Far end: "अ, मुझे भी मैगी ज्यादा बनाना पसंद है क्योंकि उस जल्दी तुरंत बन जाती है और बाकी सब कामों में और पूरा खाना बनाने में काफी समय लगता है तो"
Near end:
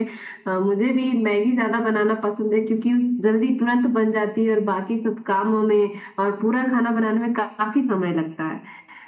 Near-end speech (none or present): none